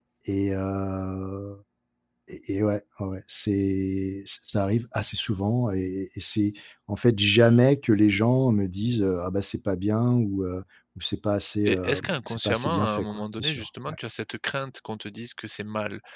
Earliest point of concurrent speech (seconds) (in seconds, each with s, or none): 11.7 s